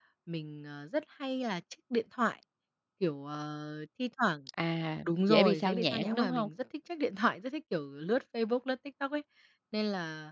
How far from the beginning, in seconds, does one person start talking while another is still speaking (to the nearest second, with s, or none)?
5 s